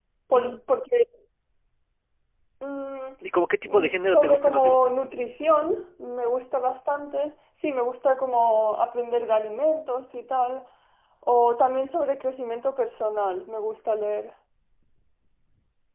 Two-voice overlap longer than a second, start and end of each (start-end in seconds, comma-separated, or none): 3.7-4.9